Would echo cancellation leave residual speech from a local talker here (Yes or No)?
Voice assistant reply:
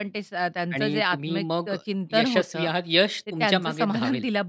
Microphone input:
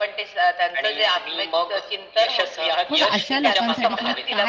Yes